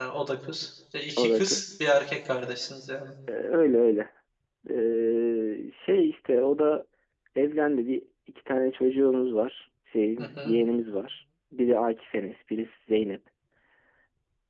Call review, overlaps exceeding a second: none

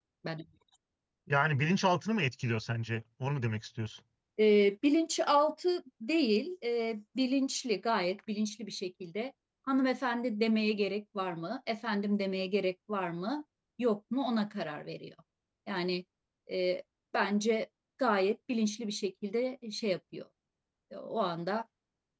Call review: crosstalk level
none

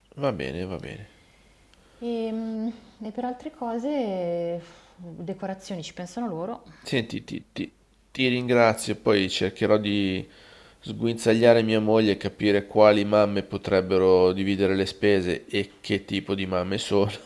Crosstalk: none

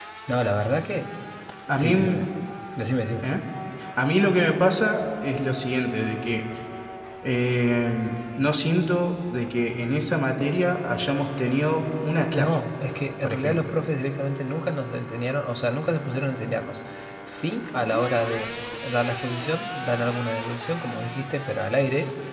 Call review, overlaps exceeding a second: none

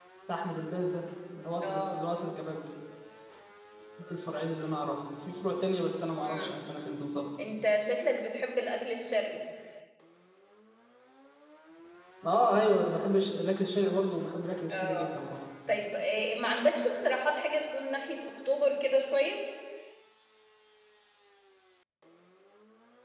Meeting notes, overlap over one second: none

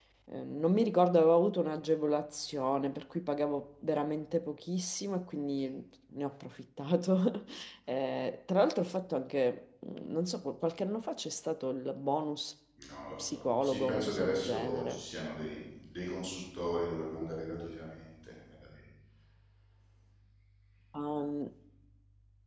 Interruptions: present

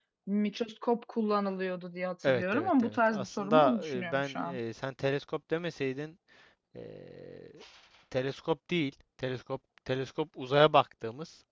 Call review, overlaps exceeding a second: present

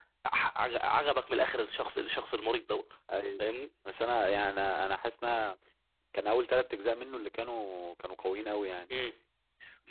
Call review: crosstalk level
none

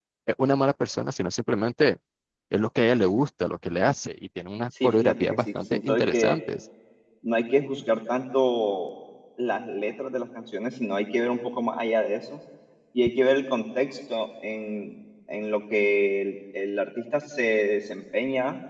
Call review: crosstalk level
present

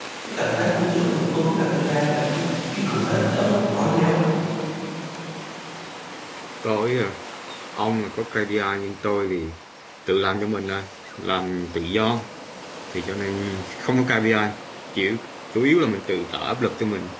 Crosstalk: none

